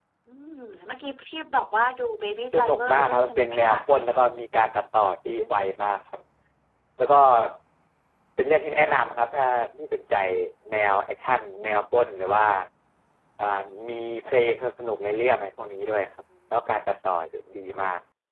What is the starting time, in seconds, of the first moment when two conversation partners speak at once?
2.5 s

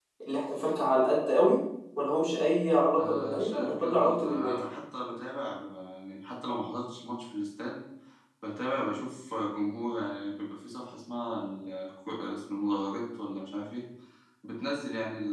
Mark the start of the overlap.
2.9 s

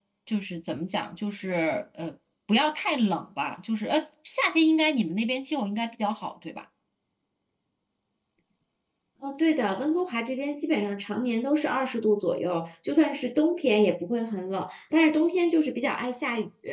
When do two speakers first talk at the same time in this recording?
none

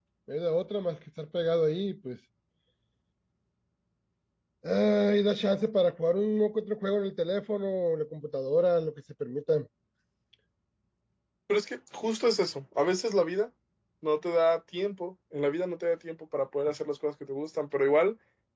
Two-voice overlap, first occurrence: none

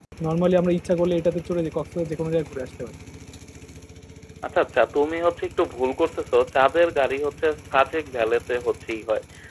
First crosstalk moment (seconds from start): none

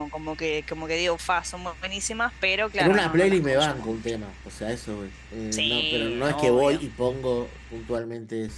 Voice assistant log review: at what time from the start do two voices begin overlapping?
2.8 s

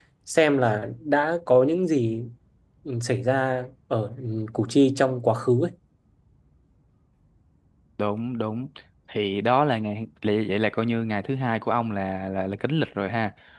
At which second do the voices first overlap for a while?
none

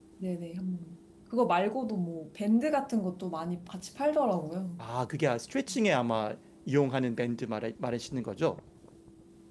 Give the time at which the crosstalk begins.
none

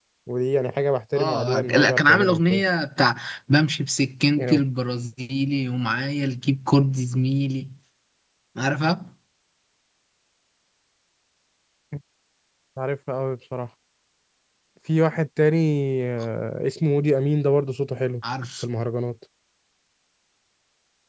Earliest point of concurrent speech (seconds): 1.2 s

